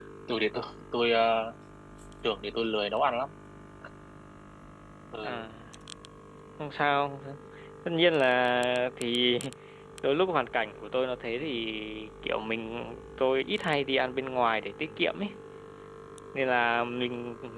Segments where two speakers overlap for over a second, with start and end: none

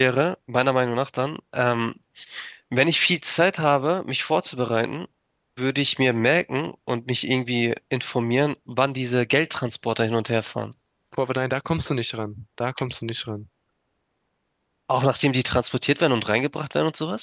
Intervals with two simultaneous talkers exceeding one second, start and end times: none

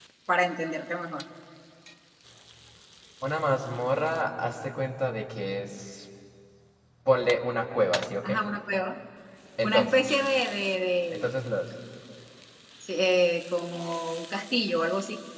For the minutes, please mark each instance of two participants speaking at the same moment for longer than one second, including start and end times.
none

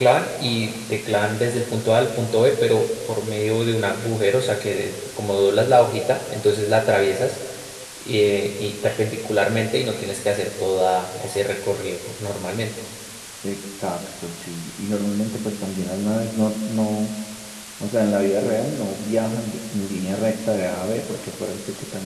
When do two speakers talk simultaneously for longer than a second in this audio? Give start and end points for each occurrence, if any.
none

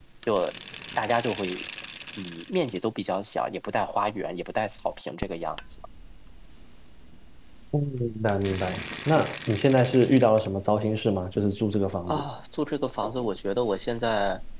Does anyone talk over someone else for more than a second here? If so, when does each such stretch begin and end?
none

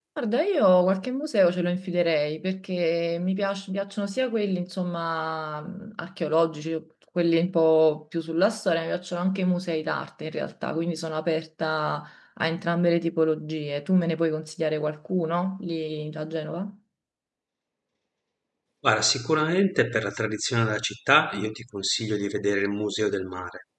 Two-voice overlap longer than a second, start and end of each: none

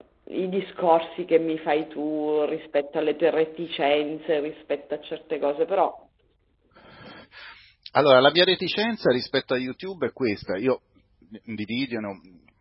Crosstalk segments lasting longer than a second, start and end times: none

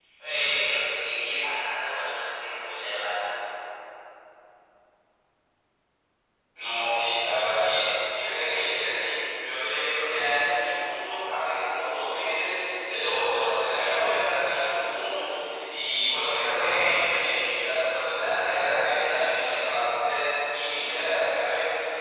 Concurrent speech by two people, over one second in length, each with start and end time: none

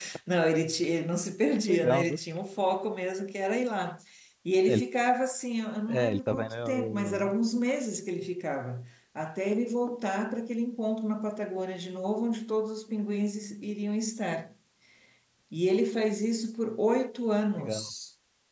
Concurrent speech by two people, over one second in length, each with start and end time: 5.9-7.3

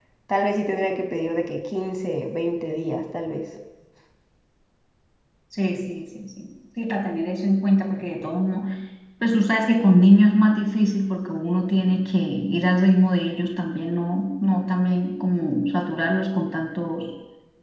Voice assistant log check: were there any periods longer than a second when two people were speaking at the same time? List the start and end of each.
none

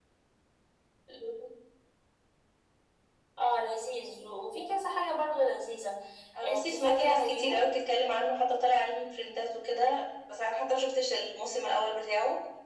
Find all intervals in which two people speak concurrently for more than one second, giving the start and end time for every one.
6.4-7.6

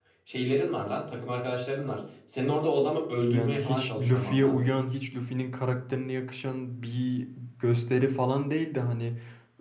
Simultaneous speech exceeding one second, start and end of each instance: 3.3-4.7

